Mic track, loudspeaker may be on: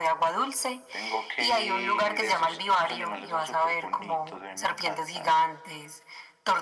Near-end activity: none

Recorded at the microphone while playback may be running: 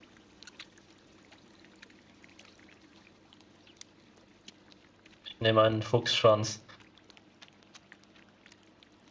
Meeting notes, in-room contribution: present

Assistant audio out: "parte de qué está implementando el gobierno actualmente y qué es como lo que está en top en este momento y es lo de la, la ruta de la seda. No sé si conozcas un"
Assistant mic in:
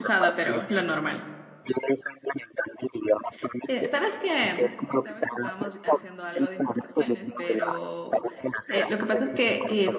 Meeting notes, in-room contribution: present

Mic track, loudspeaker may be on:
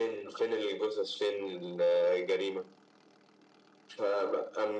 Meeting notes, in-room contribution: none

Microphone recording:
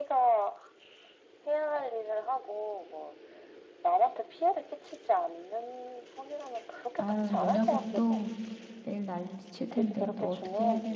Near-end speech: present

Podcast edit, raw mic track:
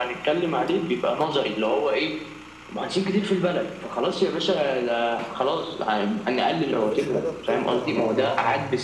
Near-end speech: present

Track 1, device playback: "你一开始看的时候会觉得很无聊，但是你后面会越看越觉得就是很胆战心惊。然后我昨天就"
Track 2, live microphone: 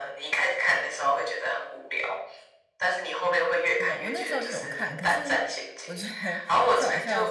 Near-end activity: present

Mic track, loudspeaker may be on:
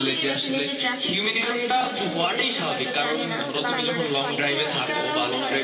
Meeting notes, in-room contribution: present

